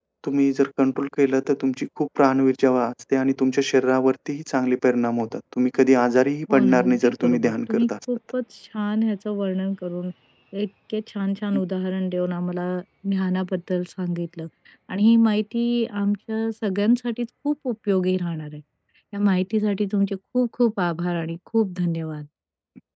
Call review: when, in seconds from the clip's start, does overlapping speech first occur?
6.5 s

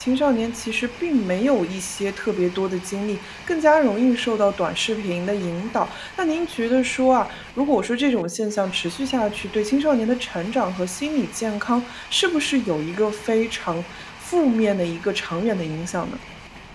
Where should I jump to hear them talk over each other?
none

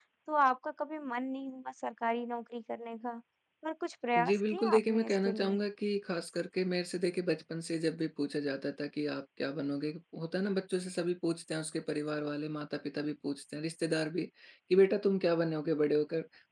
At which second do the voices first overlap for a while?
4.2 s

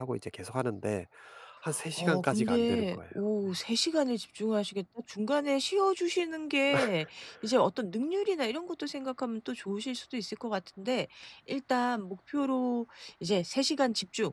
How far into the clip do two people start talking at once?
1.9 s

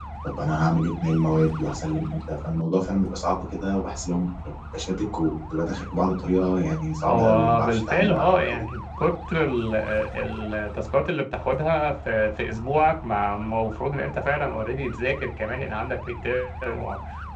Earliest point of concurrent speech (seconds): 7.1 s

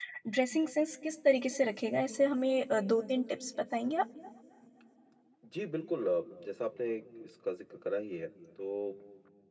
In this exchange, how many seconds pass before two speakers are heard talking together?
none

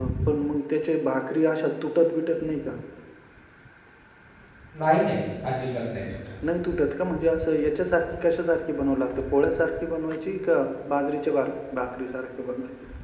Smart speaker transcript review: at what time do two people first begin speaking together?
none

